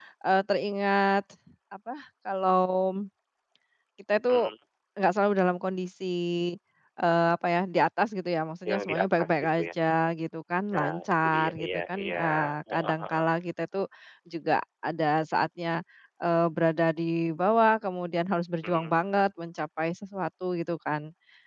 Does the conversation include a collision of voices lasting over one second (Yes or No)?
Yes